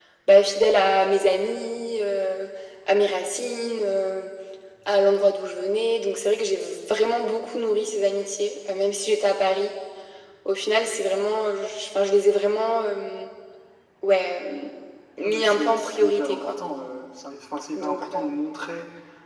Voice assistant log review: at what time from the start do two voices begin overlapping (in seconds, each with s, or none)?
15.2 s